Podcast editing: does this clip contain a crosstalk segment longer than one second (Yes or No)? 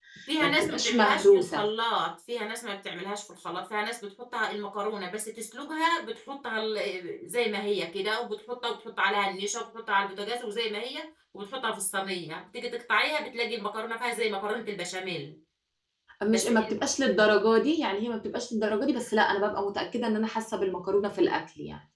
Yes